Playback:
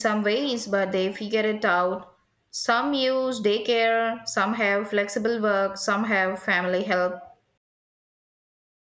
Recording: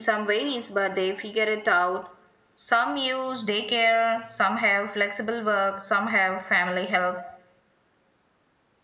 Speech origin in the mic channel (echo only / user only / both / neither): echo only